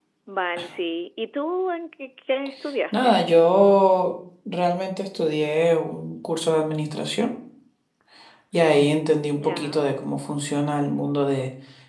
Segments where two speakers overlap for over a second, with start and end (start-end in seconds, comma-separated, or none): none